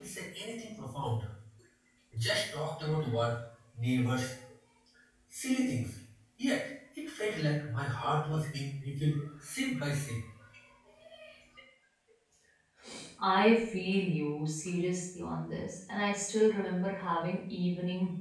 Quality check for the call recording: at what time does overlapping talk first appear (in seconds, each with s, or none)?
none